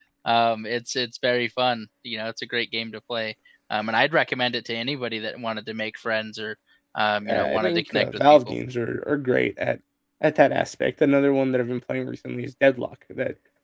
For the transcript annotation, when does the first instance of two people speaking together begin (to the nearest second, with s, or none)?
7 s